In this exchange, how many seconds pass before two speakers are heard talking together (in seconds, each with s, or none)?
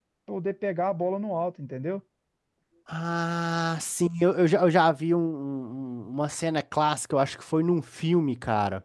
none